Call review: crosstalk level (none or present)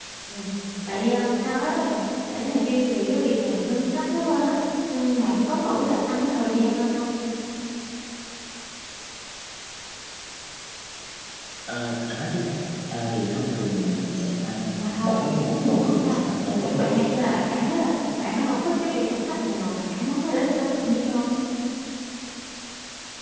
present